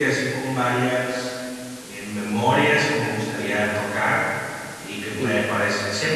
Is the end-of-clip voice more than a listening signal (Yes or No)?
No